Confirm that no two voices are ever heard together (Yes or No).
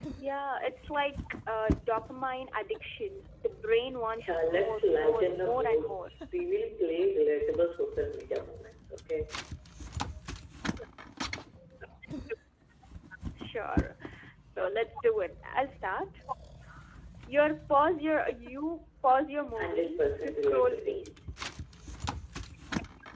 No